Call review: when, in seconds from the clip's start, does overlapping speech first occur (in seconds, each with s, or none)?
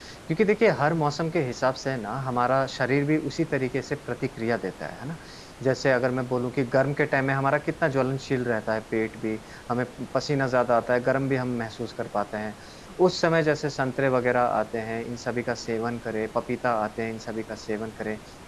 none